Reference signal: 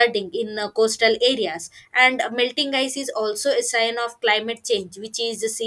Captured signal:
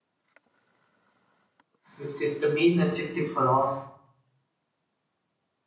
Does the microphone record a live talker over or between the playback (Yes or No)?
Yes